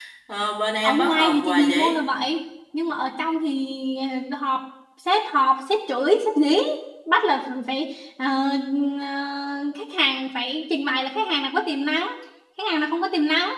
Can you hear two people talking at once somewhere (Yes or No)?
Yes